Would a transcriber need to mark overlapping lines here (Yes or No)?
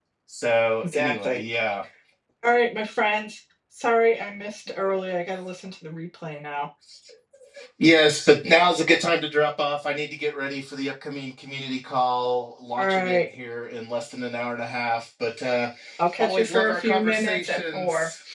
Yes